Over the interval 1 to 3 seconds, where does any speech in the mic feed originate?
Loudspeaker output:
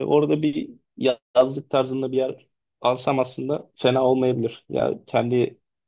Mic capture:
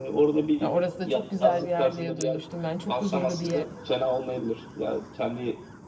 both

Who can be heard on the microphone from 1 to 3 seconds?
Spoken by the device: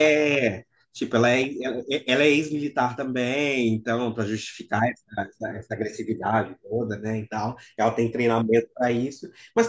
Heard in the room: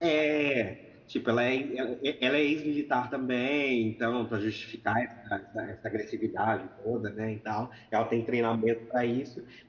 echo only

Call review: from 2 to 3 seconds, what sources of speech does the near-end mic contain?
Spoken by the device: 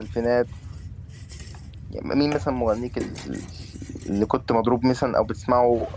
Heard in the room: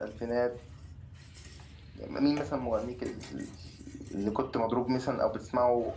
echo only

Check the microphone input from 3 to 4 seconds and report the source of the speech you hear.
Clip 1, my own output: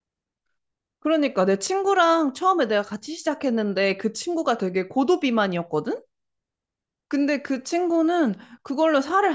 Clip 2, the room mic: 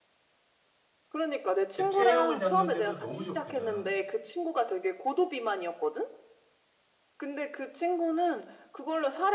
both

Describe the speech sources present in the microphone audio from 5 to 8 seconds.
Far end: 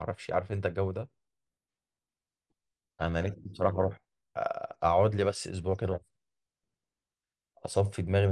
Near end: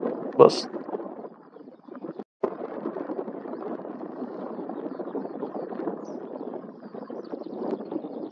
neither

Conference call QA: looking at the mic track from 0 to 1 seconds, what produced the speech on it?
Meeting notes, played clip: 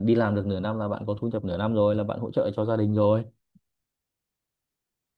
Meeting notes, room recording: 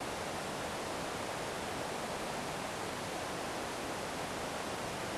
neither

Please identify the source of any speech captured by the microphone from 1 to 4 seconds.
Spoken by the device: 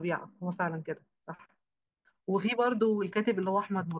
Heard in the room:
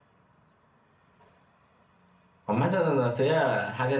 user only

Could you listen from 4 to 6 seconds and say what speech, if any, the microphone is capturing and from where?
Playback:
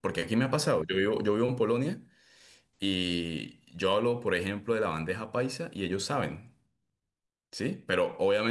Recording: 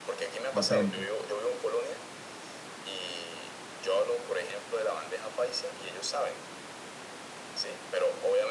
echo only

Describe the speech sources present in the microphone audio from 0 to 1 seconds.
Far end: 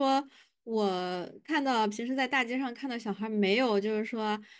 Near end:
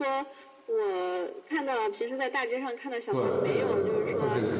echo only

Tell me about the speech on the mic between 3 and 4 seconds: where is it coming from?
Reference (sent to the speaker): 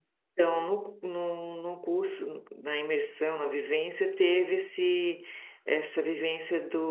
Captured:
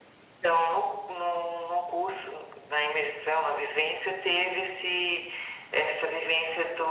echo only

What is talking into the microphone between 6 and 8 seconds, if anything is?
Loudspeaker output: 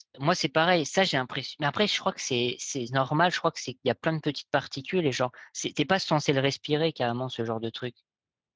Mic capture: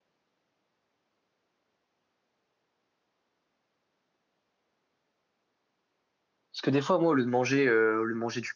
user only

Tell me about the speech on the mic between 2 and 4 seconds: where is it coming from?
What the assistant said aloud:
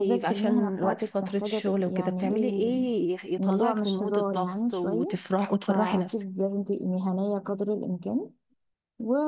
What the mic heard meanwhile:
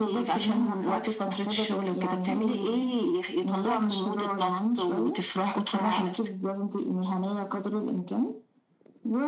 echo only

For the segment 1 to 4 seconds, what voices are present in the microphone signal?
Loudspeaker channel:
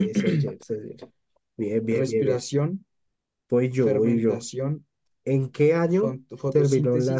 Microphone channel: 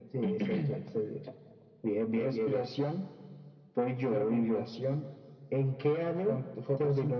echo only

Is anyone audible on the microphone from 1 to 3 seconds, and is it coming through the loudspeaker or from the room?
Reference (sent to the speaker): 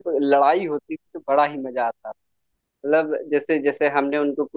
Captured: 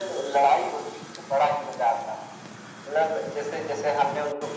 echo only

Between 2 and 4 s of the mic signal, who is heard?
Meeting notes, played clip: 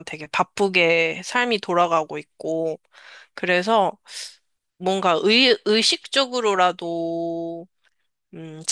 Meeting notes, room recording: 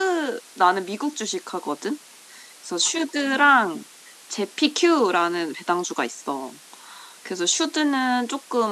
user only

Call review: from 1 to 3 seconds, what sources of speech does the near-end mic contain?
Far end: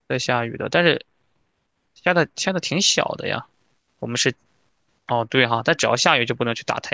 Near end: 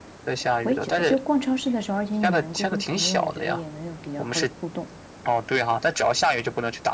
both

